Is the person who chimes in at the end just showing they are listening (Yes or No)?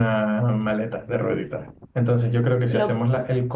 Yes